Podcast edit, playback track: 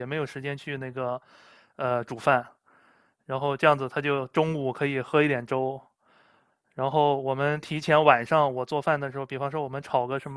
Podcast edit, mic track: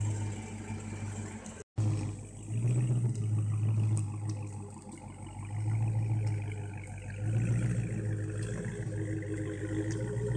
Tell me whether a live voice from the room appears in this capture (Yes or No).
No